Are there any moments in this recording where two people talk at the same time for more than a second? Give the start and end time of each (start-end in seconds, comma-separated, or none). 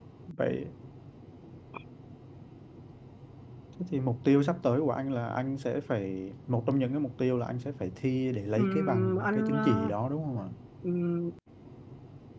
8.6-9.9